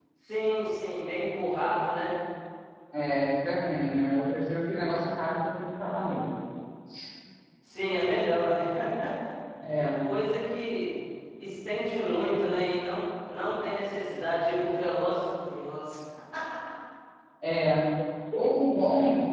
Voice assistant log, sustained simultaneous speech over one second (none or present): none